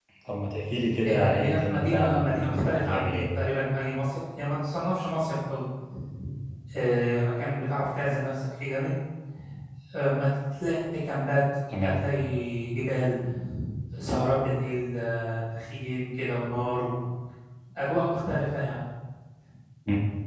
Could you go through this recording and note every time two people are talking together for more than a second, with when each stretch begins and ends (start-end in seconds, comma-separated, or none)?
1.0-3.3